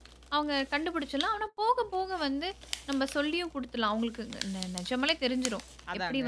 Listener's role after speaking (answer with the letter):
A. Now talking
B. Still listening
B